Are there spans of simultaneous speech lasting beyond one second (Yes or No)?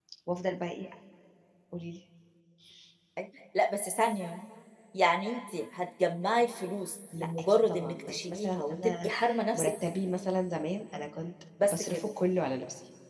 Yes